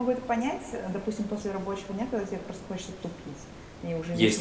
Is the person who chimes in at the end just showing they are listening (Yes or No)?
No